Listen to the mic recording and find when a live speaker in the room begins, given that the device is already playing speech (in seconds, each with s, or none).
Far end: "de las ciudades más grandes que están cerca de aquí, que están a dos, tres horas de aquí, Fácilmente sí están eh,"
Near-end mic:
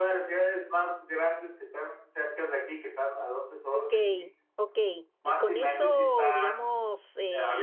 3.7 s